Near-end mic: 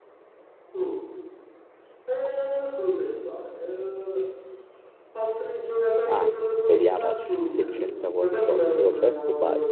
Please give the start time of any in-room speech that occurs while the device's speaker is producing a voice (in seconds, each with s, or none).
6.0 s